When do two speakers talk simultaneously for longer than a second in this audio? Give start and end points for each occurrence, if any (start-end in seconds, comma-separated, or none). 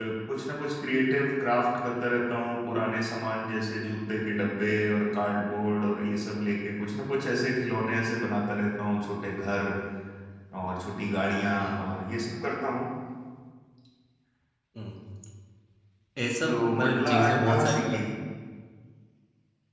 16.5-18.0